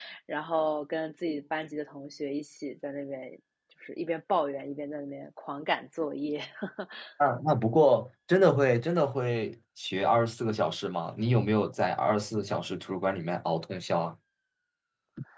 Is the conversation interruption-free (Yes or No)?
Yes